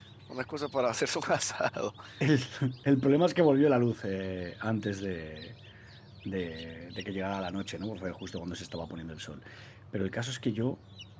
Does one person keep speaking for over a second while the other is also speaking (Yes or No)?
No